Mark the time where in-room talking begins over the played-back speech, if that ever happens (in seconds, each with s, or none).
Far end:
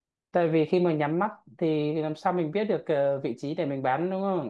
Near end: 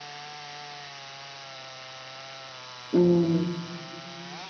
2.9 s